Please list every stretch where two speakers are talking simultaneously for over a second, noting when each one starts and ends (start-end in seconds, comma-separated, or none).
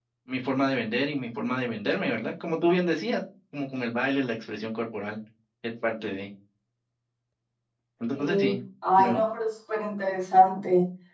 none